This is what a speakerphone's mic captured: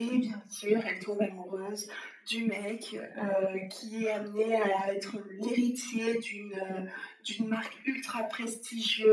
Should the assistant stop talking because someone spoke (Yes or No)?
No